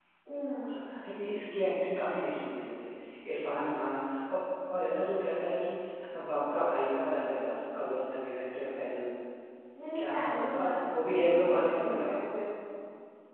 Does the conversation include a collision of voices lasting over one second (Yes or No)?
Yes